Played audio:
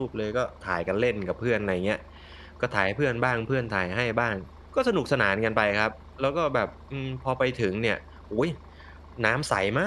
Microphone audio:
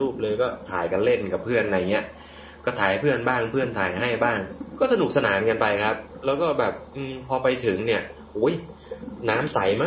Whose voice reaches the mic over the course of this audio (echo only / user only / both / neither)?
echo only